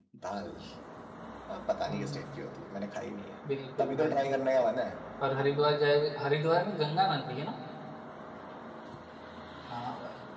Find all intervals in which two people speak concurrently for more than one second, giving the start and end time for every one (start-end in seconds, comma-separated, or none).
none